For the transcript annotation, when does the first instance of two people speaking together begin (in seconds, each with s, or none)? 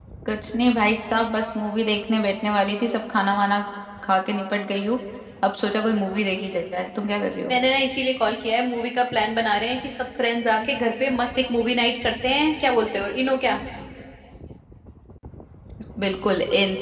none